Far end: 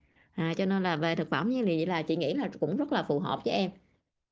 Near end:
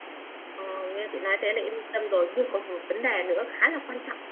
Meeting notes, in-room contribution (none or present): present